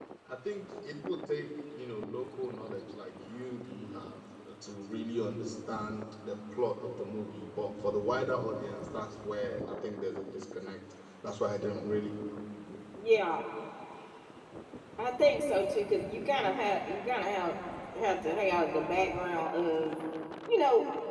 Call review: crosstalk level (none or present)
none